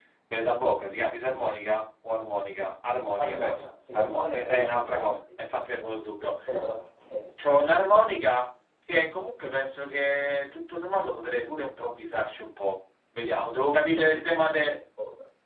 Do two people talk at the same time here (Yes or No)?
Yes